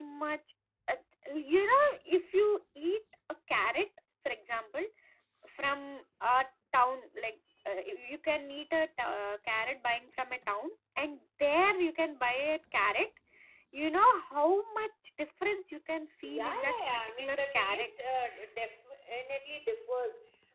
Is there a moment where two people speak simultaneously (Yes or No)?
Yes